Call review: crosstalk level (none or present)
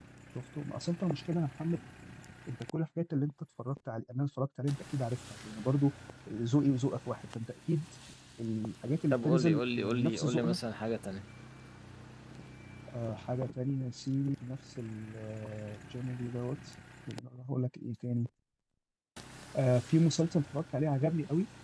present